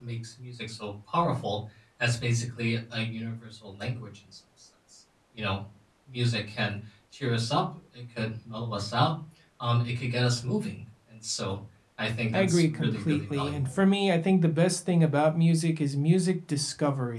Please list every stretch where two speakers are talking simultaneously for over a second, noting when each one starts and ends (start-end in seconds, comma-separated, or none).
12.3-13.7